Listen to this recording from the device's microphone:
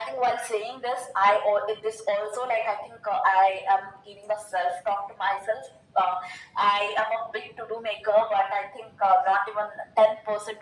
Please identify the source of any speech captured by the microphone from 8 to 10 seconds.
echo only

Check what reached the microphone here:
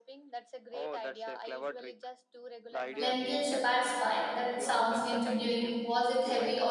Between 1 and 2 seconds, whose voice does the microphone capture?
echo only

